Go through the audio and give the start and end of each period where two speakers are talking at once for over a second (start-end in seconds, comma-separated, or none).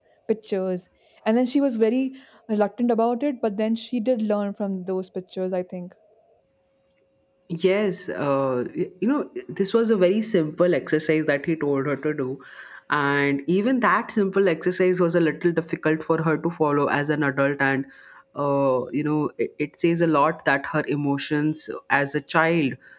none